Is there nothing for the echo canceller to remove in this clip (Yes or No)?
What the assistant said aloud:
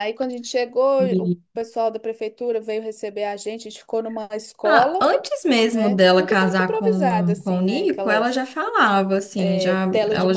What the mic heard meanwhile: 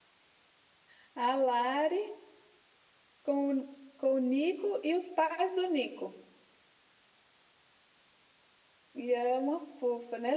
Yes